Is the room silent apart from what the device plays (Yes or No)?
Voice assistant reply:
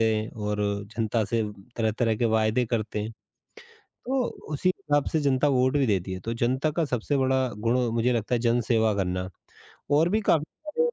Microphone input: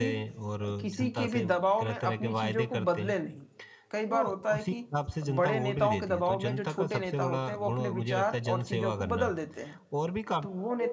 No